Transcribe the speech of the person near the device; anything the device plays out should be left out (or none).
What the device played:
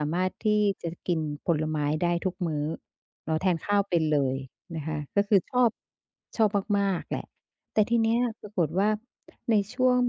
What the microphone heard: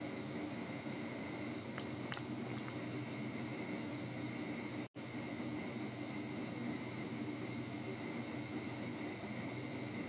none